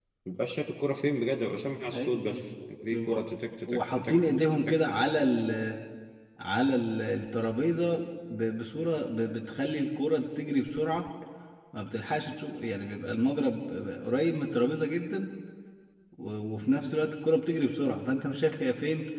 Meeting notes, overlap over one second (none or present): present